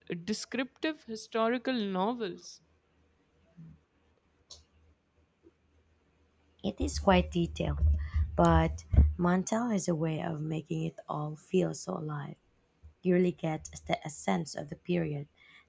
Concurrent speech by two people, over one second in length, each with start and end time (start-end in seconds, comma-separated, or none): none